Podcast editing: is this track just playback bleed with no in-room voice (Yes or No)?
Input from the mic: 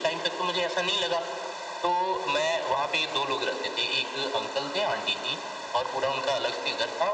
Yes